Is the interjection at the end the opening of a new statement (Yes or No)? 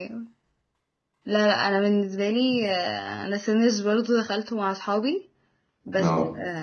No